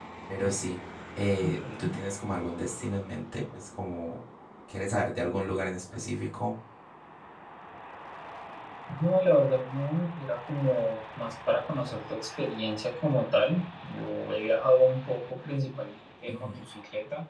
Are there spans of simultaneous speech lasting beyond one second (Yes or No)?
No